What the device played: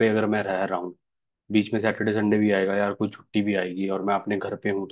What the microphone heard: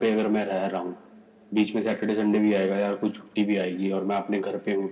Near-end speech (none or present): none